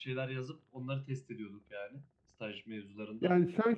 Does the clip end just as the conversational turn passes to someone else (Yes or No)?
Yes